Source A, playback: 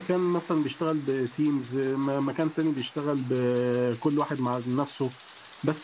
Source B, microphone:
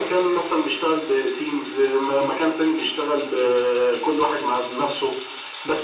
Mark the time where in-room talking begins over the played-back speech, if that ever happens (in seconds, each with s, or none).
none